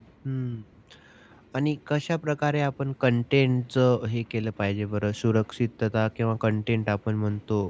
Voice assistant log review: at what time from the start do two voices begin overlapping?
none

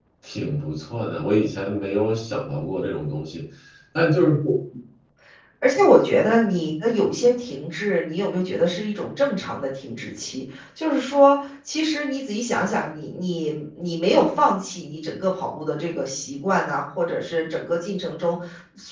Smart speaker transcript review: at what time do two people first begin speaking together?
none

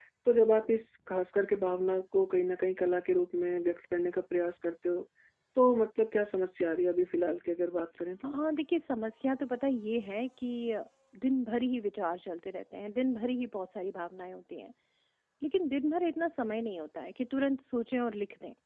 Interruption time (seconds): none

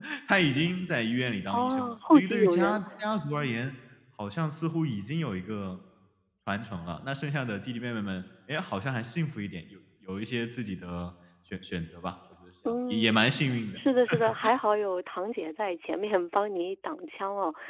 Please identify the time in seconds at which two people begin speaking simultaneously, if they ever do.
1.5 s

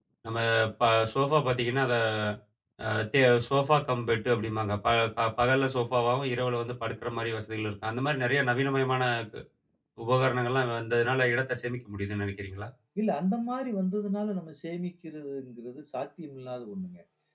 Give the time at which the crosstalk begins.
none

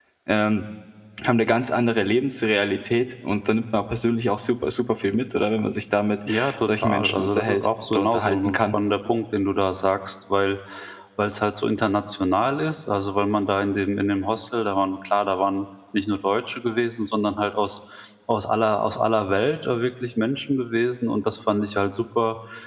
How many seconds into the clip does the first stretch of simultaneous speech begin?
6.3 s

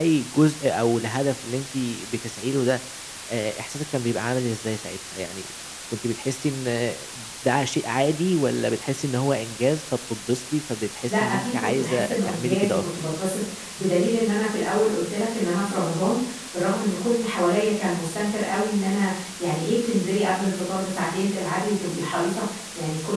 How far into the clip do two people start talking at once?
11.1 s

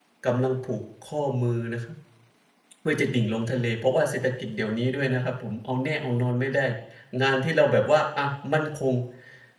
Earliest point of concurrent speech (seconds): none

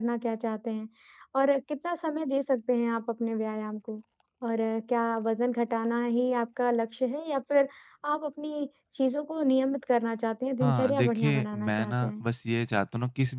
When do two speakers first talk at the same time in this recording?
10.6 s

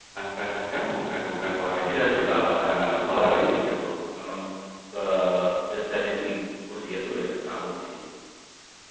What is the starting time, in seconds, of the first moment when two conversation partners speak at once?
1.8 s

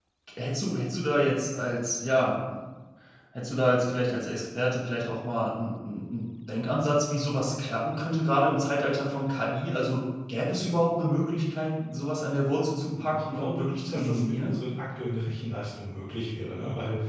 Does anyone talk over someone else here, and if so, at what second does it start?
12.9 s

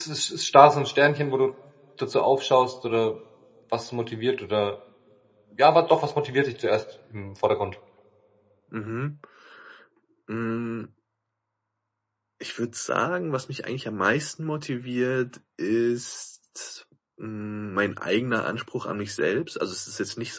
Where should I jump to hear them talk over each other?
none

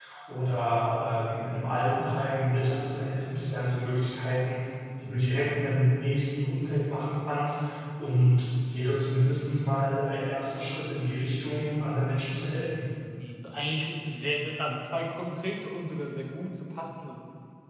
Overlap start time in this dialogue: none

